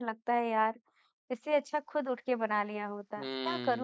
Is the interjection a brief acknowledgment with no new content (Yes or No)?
No